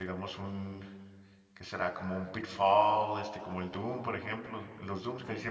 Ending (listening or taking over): listening